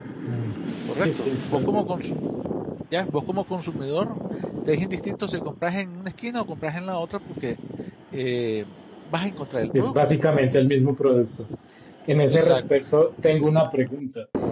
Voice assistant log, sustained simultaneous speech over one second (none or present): present